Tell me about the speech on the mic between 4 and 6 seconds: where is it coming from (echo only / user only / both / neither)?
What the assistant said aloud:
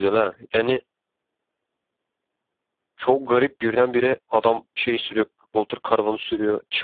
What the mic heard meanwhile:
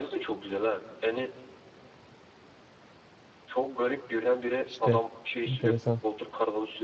both